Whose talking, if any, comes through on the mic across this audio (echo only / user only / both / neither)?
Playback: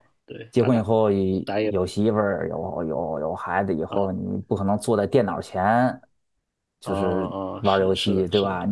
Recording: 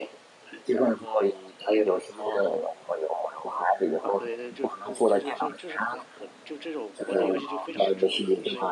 both